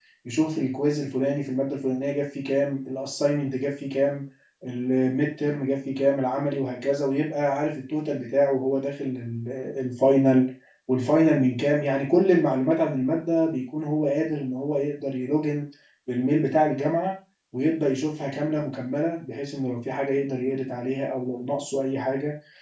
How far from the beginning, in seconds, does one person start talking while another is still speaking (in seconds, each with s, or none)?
none